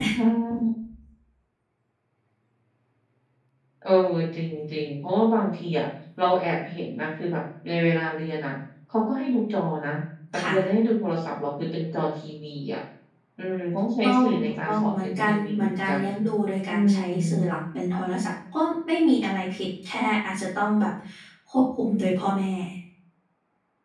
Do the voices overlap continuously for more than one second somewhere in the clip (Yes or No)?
Yes